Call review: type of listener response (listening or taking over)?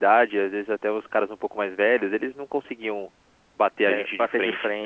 taking over